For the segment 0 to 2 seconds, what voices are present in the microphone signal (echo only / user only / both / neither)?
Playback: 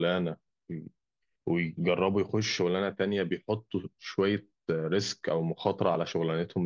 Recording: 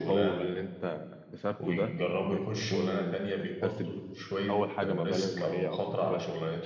both